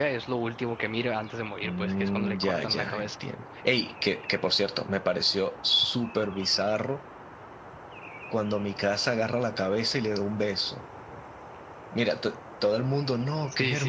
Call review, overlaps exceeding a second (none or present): present